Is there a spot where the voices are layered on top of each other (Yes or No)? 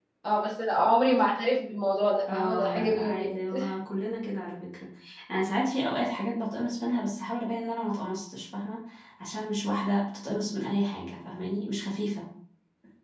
Yes